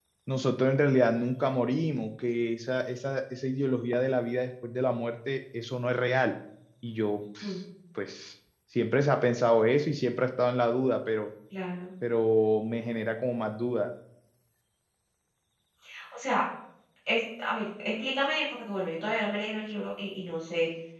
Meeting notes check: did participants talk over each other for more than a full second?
No

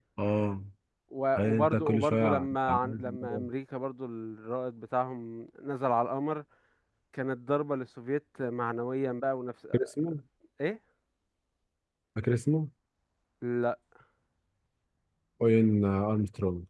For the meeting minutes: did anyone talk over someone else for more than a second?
Yes, from 1.3 s

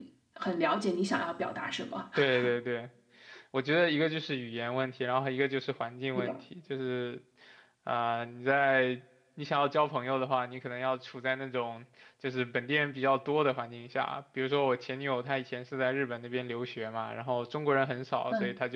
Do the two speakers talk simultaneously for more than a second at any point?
No

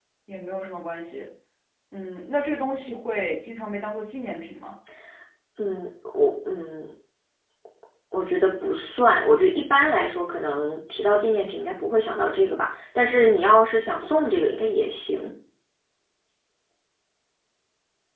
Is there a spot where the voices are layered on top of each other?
No

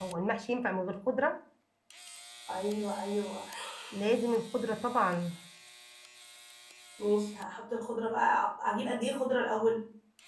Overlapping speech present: No

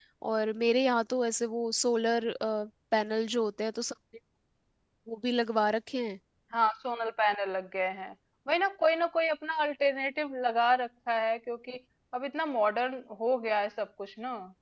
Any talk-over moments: No

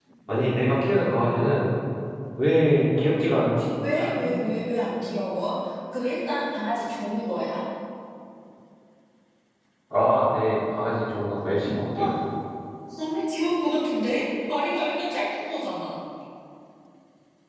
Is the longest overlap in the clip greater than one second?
No

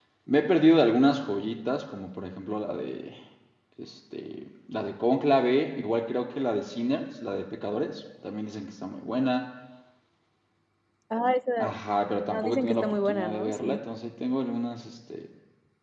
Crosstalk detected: Yes, from 12.3 s

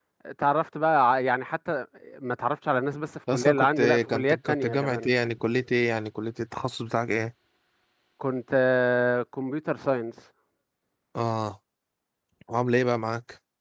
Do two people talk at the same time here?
Yes, from 3.3 s

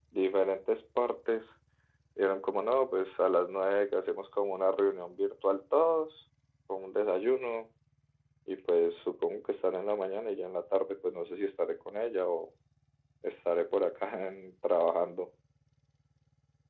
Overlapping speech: No

